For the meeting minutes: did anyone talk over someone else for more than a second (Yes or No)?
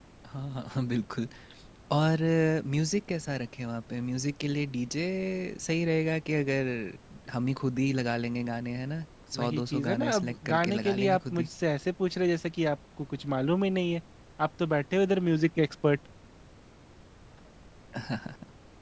Yes